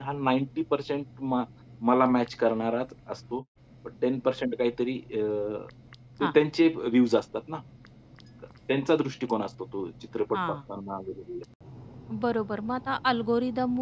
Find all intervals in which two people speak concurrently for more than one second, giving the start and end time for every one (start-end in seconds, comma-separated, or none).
none